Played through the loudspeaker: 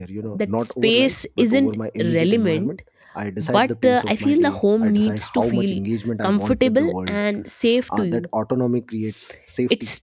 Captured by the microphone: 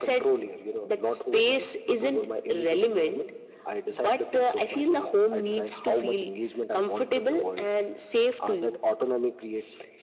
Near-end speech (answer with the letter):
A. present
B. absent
B